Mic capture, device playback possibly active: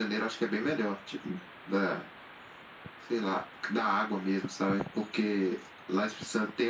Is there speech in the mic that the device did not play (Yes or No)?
No